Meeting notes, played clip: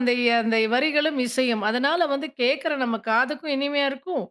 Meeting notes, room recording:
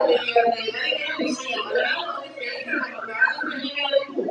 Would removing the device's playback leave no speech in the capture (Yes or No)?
Yes